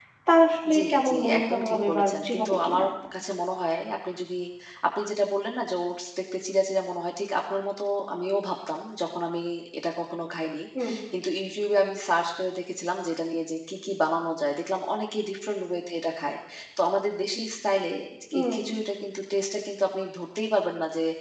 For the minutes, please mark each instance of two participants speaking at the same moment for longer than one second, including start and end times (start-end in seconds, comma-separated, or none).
0.7-2.8